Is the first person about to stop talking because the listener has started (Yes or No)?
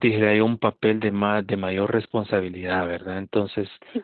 No